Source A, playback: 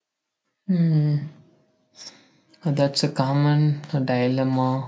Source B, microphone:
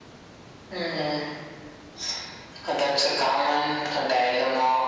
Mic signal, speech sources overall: echo only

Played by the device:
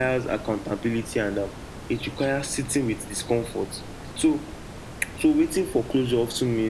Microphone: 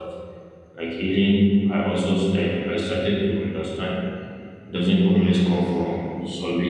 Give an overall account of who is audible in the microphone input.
user only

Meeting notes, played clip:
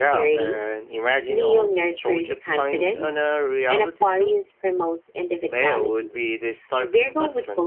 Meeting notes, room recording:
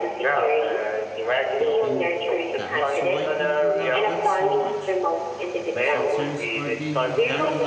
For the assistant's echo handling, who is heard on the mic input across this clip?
both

